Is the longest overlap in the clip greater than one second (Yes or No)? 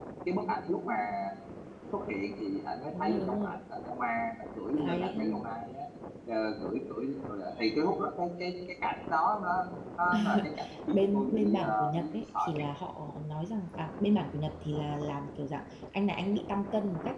Yes